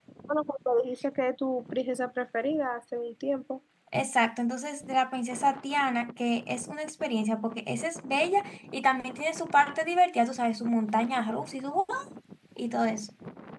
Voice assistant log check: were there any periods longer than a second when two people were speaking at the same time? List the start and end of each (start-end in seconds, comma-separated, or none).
none